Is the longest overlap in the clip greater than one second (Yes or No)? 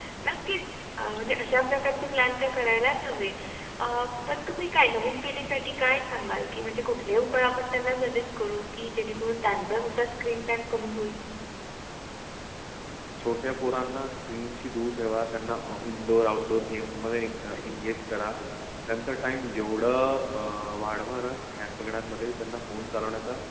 No